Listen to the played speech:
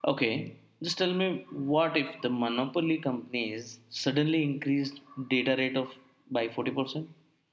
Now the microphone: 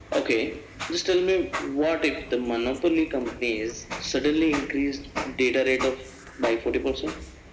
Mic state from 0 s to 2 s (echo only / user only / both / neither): echo only